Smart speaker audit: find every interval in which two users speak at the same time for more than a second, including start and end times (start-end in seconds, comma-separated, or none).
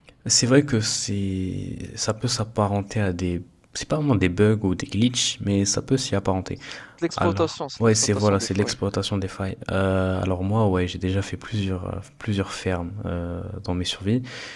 7.2-8.8